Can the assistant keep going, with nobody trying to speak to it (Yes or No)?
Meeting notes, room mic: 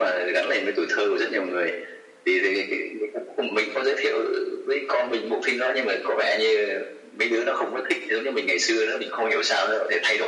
Yes